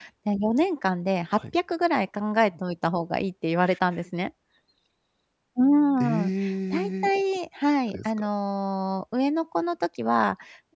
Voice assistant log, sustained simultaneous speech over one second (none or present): none